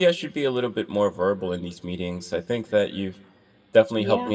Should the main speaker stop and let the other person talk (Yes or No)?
No